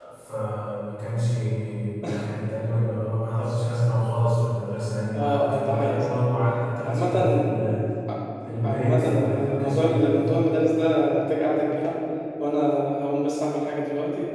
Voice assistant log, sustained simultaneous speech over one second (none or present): present